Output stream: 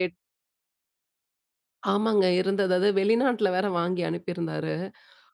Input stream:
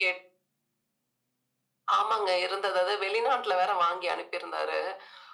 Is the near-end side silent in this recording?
Yes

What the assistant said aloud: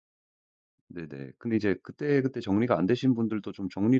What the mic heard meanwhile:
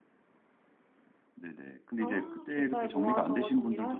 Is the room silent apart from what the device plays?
No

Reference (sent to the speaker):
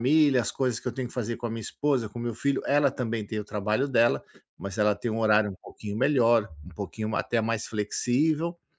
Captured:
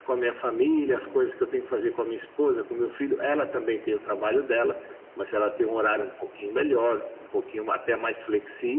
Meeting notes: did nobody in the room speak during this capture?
No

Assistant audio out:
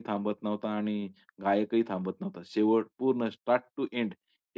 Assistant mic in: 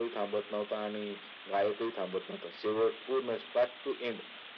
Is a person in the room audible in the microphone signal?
No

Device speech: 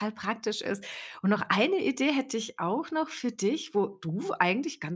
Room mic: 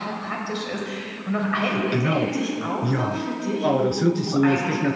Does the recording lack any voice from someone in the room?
No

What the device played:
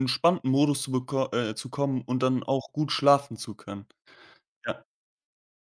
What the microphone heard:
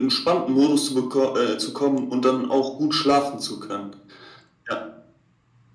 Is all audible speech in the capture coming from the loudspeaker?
Yes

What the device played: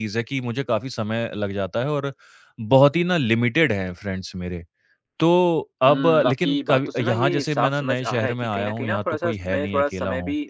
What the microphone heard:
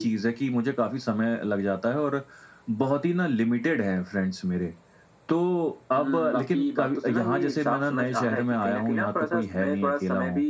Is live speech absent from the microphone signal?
Yes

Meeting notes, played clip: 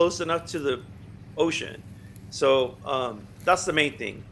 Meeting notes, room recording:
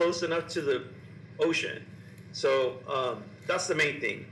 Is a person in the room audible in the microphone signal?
No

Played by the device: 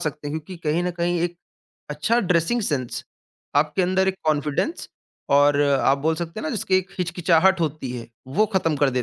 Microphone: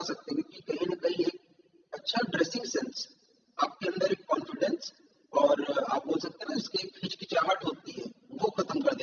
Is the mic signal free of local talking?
Yes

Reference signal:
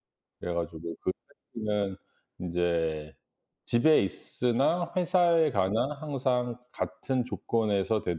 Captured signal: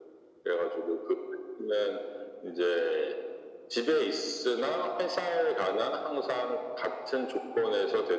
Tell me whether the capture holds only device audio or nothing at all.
Yes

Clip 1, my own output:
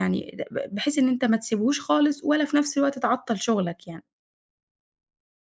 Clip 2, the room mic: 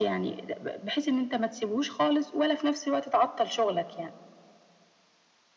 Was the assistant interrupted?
No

